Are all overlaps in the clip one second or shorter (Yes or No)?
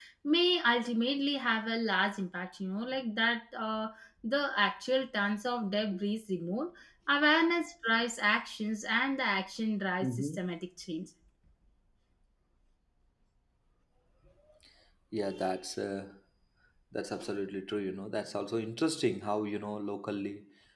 Yes